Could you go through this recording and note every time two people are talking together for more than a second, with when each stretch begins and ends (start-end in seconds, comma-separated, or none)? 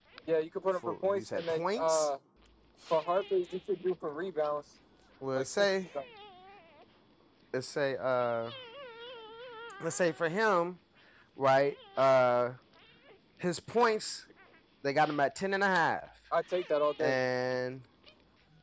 0.9-2.1